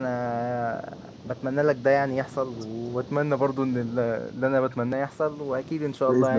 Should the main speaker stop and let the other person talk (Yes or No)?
Yes